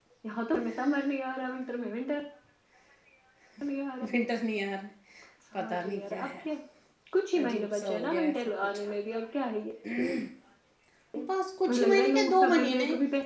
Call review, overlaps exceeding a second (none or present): present